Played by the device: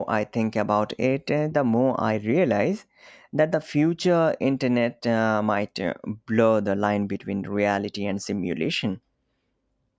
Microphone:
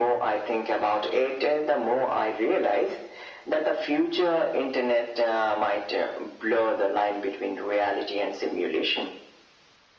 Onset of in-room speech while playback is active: none

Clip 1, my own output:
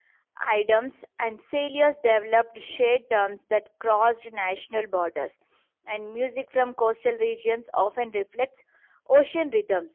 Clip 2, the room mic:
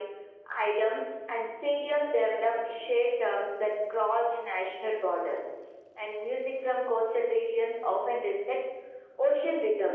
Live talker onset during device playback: none

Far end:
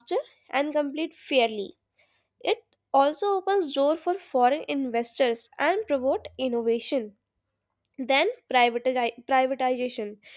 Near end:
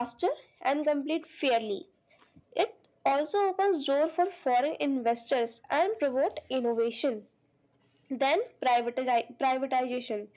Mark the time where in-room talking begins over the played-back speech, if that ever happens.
none

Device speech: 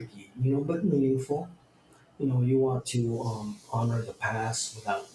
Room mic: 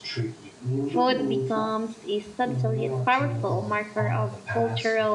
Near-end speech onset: 0.8 s

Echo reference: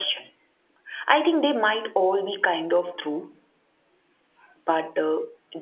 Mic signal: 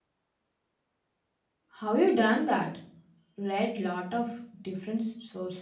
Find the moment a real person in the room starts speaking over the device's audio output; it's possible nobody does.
1.7 s

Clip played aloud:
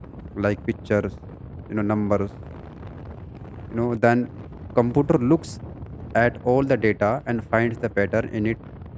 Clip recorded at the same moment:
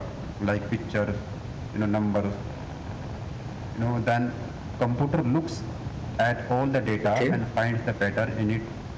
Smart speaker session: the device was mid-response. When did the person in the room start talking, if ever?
7.0 s

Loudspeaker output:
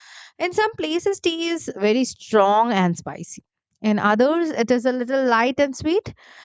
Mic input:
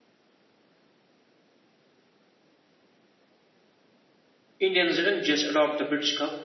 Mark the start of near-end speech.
4.6 s

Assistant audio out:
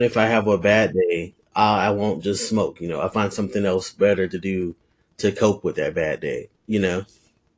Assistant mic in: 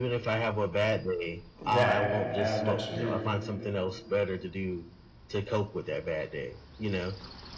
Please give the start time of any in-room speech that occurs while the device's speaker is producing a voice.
1.7 s

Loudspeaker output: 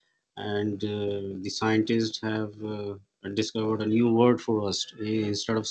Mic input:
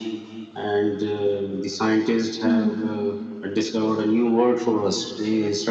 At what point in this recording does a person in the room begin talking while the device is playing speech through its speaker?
2.4 s

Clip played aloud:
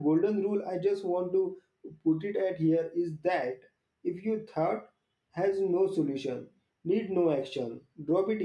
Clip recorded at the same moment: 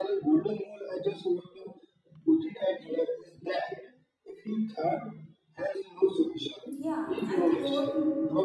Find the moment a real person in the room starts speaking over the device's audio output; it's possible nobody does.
6.7 s

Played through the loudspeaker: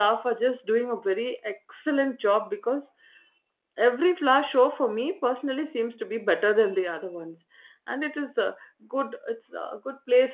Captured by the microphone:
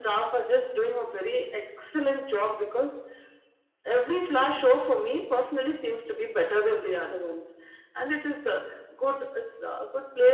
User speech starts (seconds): none

